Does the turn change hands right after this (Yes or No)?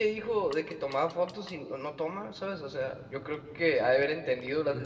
Yes